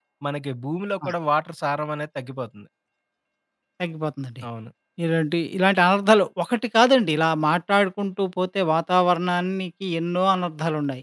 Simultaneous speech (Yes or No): No